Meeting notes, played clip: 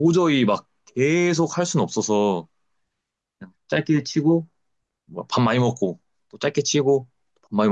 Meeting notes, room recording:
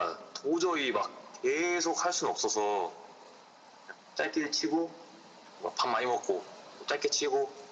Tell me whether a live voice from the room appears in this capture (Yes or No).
No